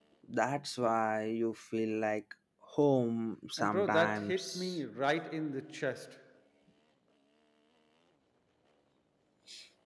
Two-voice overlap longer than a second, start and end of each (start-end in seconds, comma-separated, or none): 3.6-4.8